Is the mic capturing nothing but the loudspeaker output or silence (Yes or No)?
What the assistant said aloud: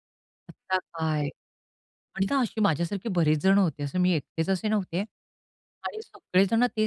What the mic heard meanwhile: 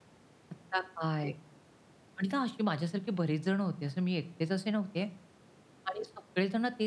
Yes